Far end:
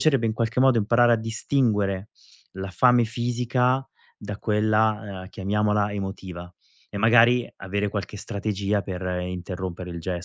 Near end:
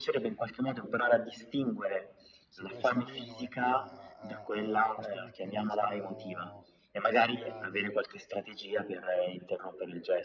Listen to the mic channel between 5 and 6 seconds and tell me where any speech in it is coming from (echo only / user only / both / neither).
both